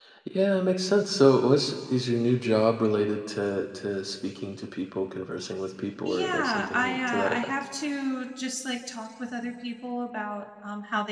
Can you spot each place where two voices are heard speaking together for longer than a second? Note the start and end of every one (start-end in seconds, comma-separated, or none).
6.0-7.4